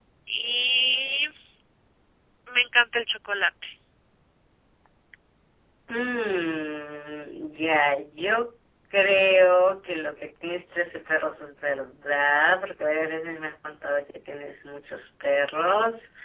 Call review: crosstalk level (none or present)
none